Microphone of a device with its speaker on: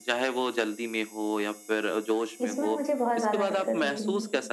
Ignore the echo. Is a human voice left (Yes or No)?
Yes